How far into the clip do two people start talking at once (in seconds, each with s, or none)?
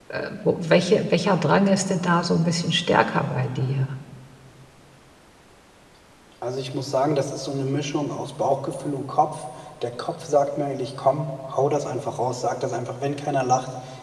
none